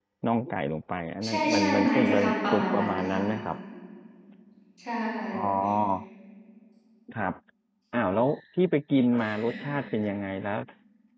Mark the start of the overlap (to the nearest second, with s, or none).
1 s